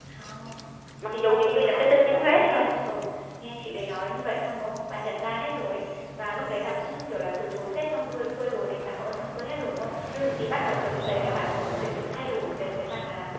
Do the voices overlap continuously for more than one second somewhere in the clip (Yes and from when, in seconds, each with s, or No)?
Yes, from 1.0 s